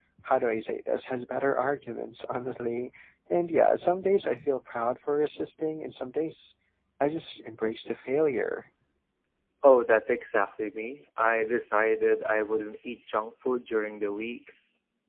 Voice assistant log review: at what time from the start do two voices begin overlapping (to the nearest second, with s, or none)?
none